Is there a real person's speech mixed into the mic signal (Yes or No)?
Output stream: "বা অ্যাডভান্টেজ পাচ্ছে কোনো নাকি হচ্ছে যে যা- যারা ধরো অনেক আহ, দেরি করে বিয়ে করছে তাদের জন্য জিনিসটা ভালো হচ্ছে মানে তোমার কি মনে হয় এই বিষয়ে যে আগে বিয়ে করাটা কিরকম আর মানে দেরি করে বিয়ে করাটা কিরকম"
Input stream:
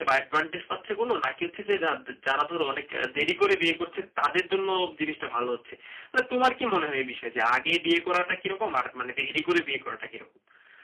No